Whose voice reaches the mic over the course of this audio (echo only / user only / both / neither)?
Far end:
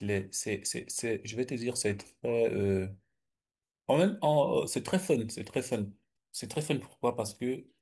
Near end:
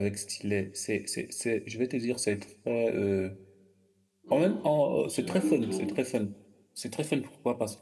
both